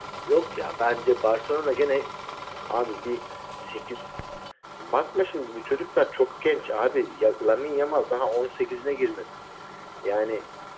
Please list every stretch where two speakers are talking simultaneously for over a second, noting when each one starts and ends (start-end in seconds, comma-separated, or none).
none